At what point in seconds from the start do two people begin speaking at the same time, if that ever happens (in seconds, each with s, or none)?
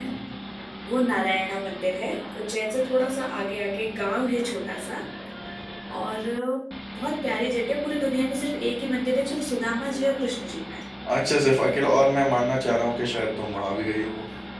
none